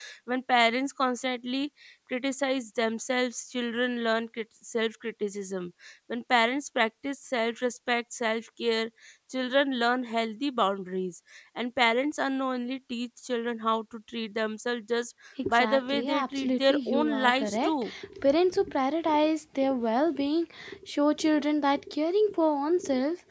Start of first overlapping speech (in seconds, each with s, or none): 15.4 s